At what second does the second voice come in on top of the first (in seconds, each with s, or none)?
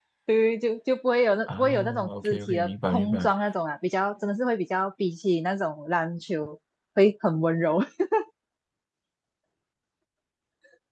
1.5 s